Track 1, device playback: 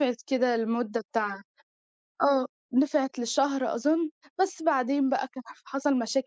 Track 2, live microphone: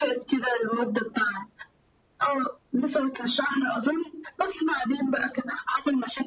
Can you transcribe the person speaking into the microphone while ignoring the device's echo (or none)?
none